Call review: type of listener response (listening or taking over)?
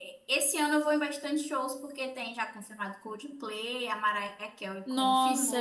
taking over